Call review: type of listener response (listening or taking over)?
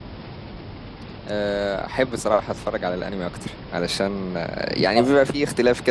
listening